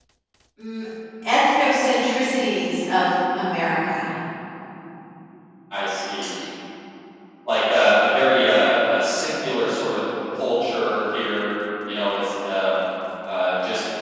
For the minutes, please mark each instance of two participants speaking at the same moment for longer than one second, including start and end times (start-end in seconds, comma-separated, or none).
none